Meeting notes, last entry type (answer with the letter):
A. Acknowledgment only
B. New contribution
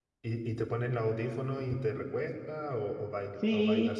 B